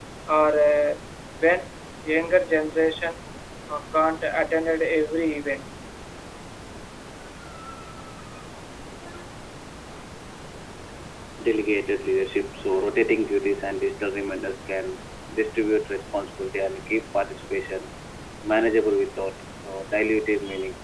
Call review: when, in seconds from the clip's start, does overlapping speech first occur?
none

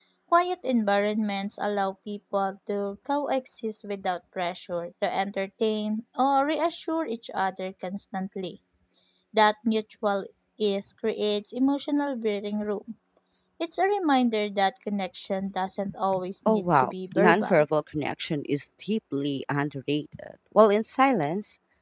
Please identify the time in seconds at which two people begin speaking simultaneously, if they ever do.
16.4 s

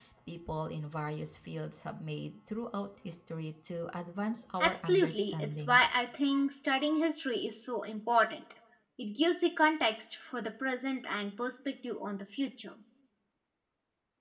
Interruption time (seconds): 4.6 s

